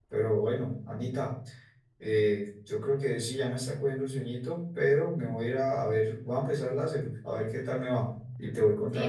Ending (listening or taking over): taking over